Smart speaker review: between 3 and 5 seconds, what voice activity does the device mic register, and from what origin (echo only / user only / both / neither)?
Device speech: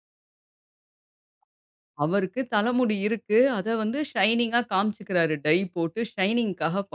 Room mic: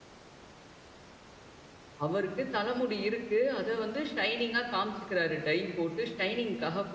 echo only